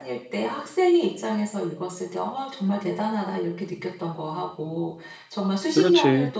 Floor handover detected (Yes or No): No